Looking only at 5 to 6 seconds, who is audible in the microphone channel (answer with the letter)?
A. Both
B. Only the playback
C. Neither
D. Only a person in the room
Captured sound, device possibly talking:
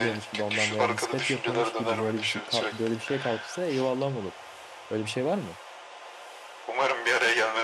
D